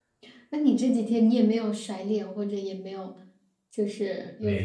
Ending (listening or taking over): taking over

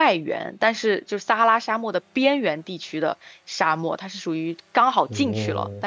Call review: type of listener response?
listening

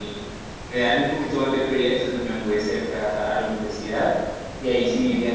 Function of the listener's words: listening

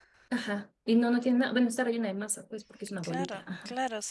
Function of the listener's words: taking over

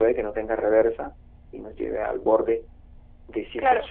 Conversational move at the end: listening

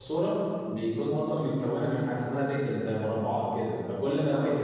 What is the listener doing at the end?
listening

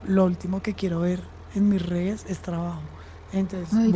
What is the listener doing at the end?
listening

